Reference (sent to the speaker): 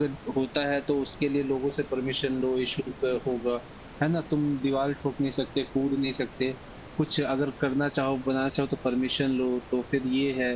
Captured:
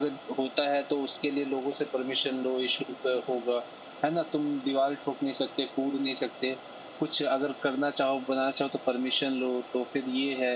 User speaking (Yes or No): No